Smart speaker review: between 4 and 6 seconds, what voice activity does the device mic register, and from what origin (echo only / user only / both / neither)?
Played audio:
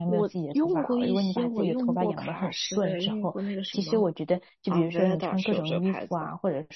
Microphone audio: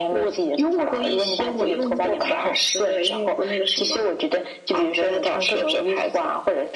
echo only